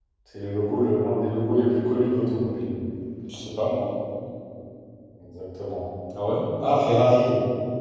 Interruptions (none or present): none